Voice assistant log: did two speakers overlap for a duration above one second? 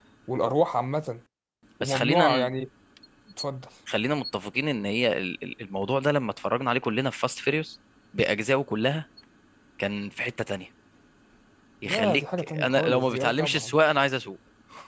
Yes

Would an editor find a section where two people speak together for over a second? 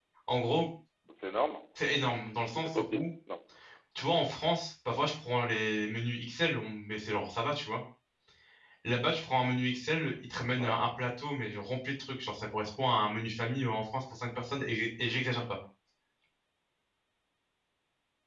No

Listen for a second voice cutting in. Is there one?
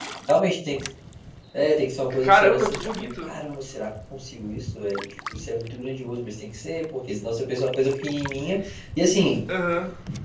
Yes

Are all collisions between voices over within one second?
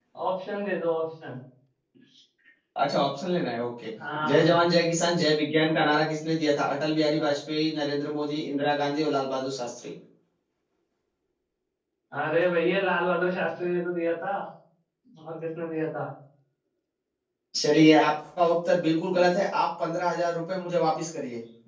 Yes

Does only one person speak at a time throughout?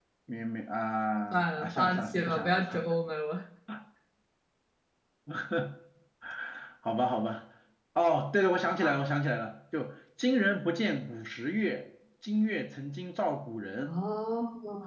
No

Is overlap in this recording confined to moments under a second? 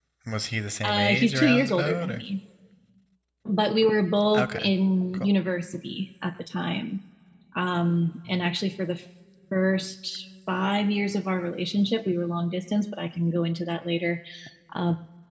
No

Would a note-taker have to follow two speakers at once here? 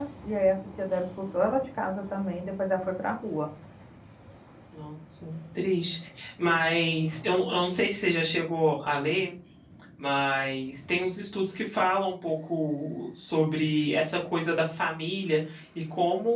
No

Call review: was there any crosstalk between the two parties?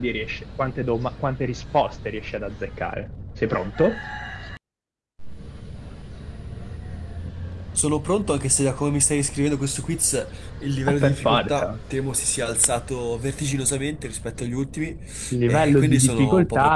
Yes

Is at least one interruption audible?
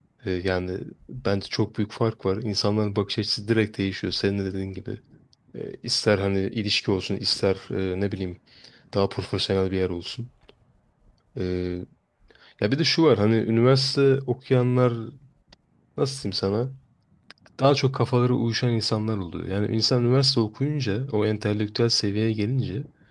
No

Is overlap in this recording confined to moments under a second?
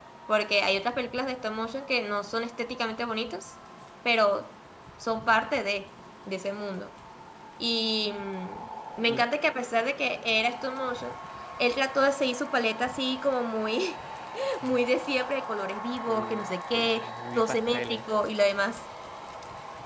No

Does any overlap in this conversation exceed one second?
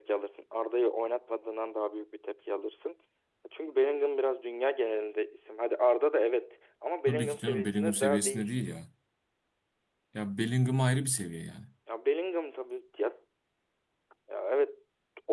Yes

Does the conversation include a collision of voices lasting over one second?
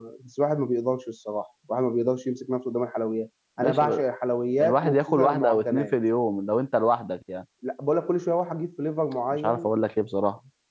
Yes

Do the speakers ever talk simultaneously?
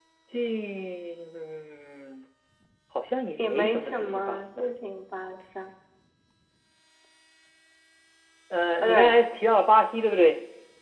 Yes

